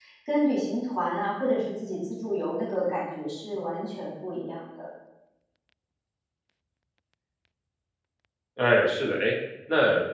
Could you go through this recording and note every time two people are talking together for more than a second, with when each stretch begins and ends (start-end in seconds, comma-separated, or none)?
none